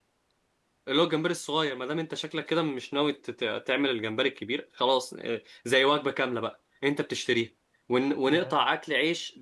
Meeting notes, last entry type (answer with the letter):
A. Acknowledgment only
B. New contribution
A